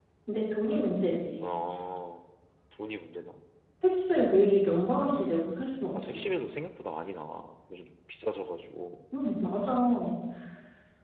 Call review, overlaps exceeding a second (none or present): none